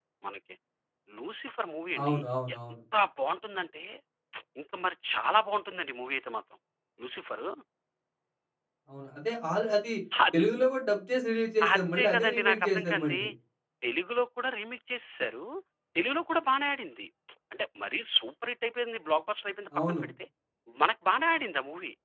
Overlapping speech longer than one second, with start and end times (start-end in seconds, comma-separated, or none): 11.7-13.2